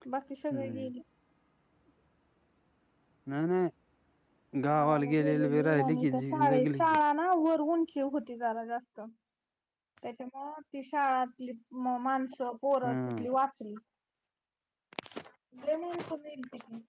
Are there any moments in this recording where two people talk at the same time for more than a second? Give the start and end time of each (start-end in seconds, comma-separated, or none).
4.7-7.0